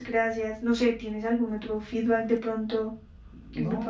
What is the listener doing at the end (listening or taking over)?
taking over